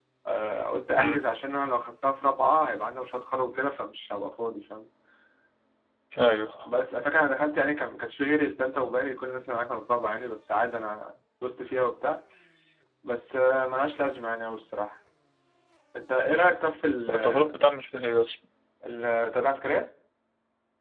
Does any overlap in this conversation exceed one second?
No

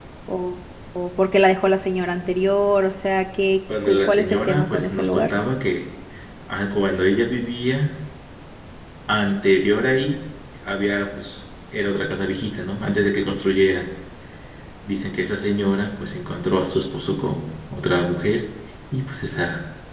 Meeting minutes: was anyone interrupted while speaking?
Yes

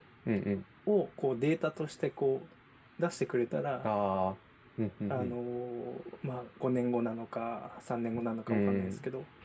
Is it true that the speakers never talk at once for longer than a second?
Yes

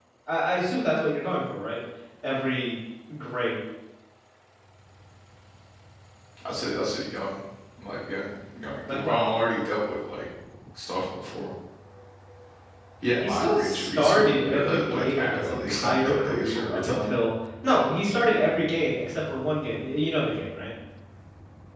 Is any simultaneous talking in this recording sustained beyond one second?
Yes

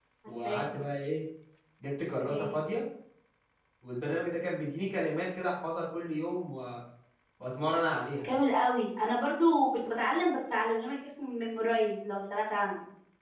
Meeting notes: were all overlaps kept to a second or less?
Yes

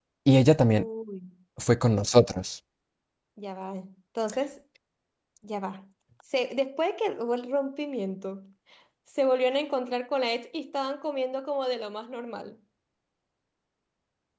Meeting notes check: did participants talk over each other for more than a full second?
No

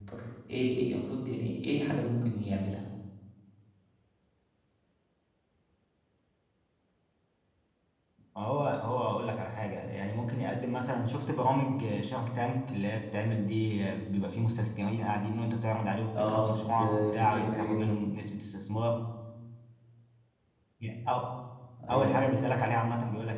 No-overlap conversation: No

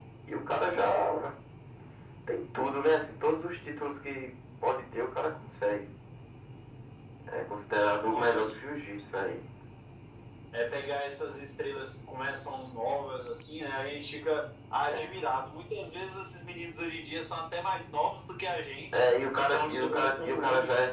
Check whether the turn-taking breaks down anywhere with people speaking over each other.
Yes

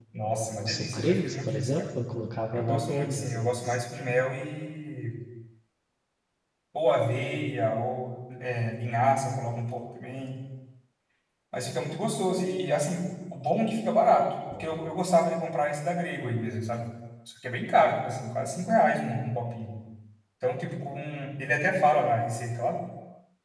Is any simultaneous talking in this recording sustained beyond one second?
Yes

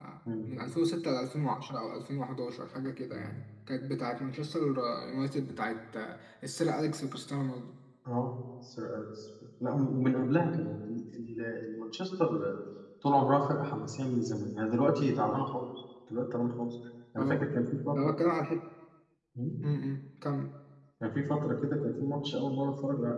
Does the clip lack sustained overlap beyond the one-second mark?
Yes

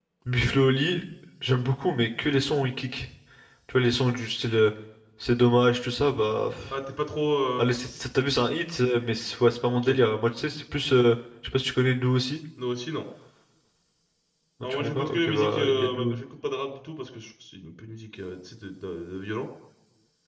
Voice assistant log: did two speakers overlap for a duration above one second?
Yes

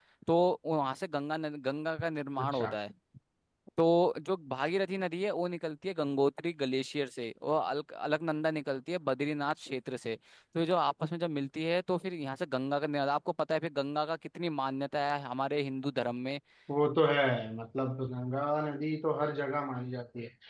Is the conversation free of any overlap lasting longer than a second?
Yes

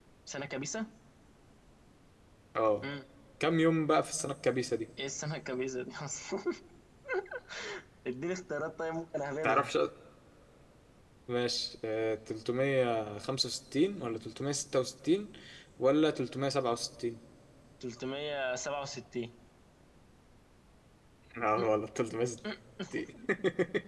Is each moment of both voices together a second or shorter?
Yes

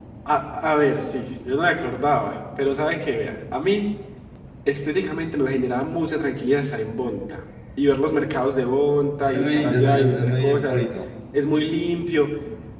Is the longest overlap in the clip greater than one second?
Yes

